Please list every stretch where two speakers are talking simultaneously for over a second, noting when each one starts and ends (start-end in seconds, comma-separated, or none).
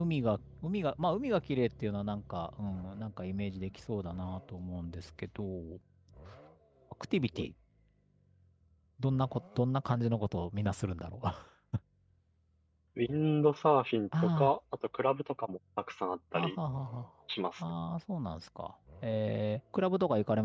none